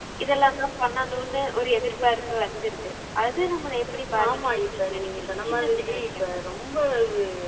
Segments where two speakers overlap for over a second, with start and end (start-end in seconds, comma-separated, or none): 4.3-6.4